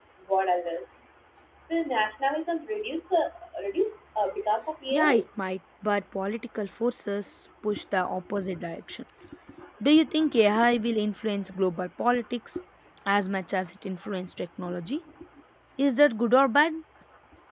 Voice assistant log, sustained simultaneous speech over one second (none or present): none